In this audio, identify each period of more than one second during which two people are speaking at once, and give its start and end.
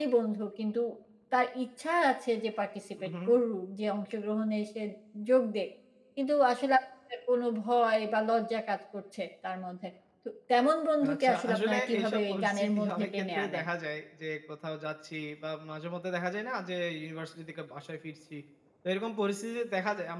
11.1-13.7

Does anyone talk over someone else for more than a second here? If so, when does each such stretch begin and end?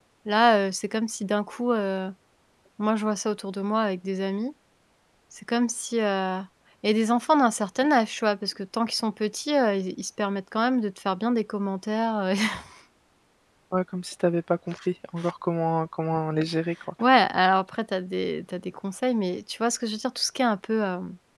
none

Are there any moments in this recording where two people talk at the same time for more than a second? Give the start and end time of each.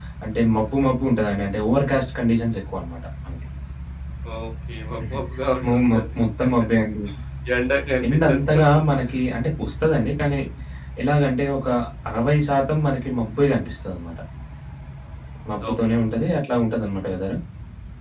none

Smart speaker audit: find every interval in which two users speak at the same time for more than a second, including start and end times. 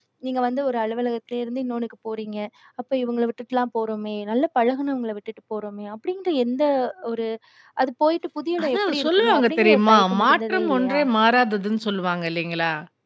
8.6-11.0

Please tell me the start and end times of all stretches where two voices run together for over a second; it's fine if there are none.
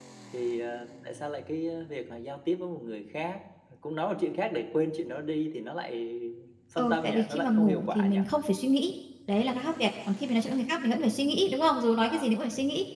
6.8-8.2

